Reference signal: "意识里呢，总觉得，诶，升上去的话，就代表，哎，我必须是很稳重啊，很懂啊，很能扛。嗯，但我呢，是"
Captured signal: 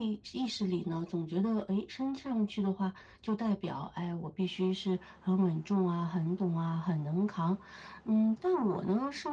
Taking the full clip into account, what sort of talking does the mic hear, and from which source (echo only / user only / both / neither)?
echo only